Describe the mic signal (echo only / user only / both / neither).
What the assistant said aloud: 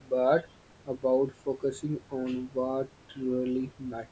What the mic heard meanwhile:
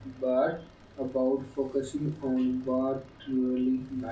echo only